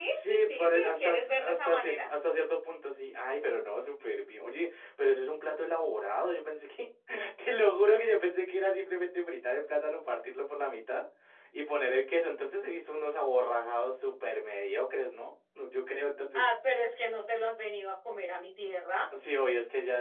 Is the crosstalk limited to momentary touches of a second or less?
No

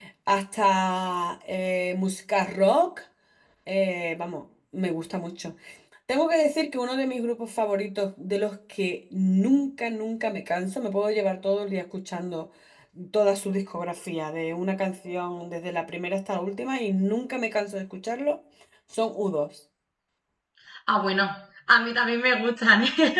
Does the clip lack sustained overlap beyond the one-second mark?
Yes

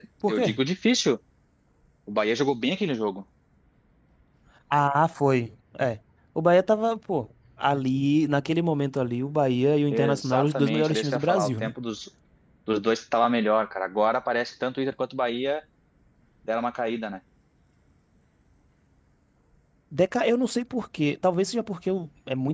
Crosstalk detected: Yes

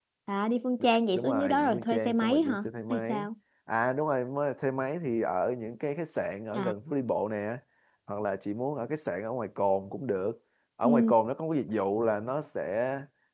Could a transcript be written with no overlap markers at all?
No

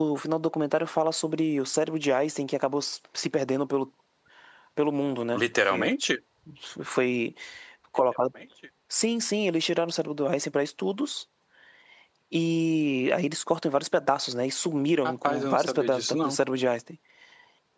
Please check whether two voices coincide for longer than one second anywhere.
Yes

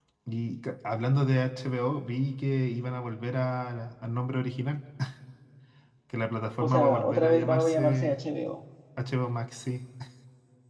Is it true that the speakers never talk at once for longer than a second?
No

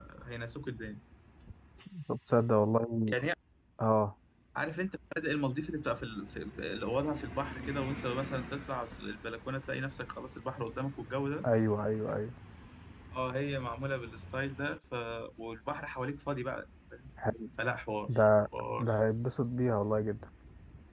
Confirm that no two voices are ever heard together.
Yes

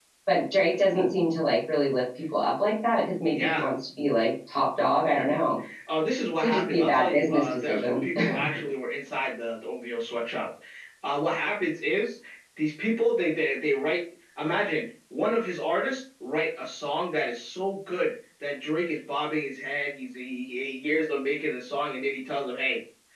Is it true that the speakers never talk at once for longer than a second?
No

